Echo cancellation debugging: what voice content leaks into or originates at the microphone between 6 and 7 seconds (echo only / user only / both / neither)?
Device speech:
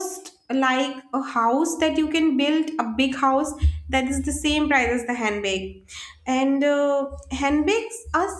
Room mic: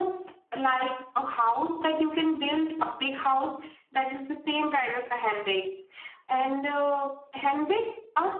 echo only